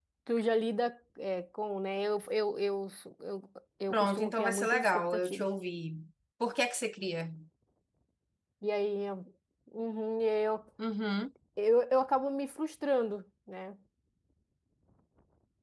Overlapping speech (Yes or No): Yes